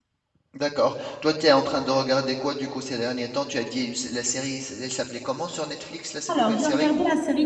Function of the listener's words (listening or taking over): taking over